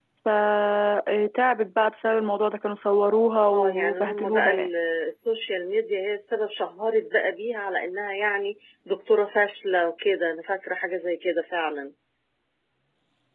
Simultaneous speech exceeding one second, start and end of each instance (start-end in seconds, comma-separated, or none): 3.5-4.7